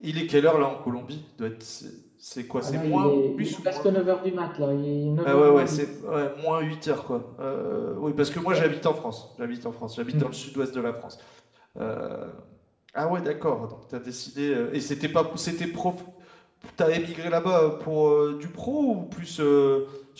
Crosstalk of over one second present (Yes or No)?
Yes